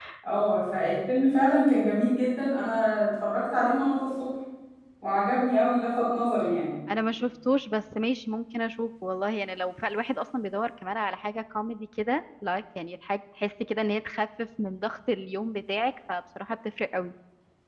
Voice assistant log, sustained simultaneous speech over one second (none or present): none